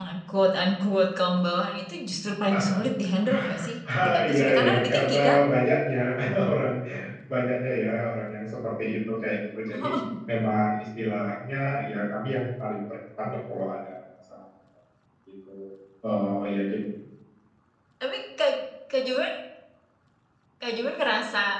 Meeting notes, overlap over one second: present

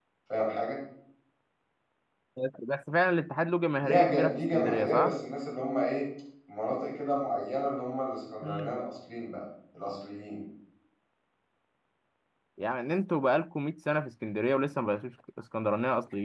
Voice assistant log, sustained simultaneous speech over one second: present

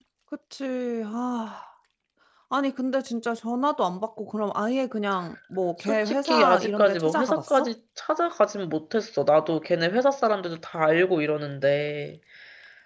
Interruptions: present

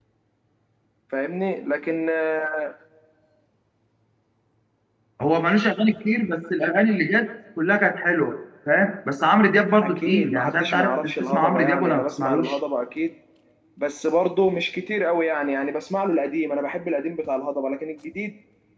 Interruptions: present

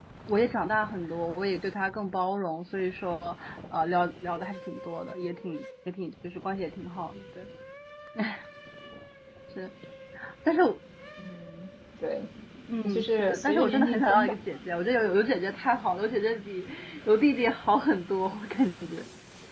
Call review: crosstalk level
present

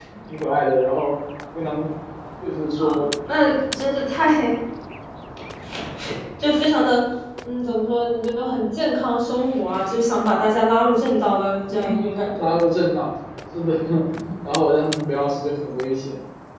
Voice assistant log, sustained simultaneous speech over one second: none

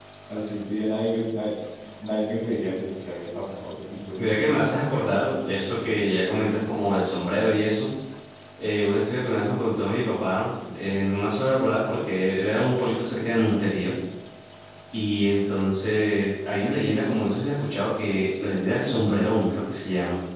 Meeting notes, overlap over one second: present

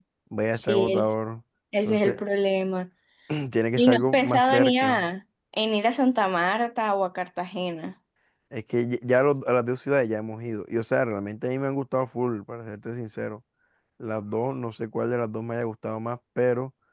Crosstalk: present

